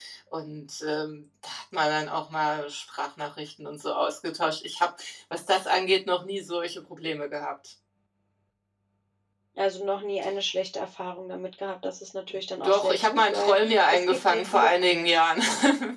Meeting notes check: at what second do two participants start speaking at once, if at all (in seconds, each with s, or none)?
12.6 s